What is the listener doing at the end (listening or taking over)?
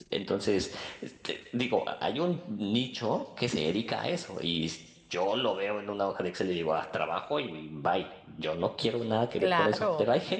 listening